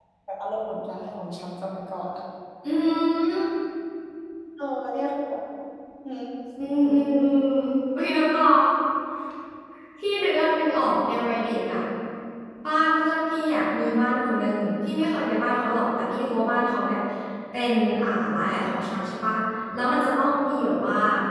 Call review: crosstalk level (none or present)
none